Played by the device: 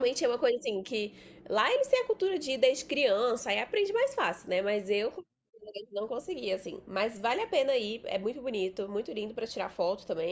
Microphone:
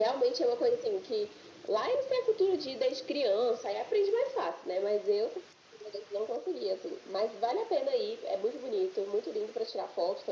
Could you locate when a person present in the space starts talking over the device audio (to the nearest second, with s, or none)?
none